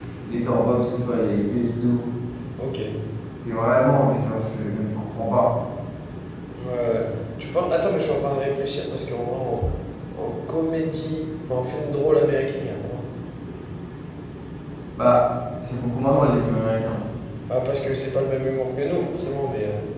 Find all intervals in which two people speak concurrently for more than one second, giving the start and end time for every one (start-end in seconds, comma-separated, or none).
none